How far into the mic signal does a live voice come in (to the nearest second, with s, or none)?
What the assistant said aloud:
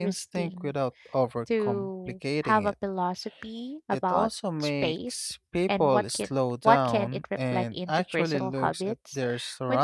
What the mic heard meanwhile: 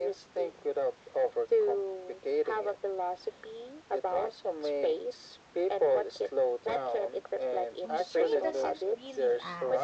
8 s